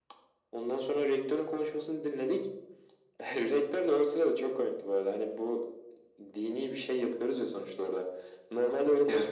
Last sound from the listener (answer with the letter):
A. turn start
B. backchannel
B